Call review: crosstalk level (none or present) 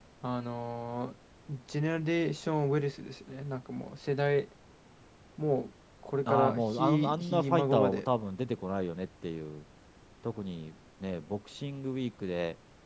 present